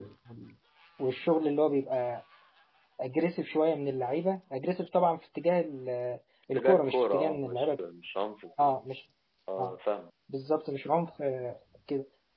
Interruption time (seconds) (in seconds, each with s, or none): 6.5 s